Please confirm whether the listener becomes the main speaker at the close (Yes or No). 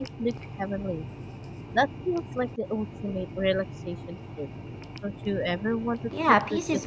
Yes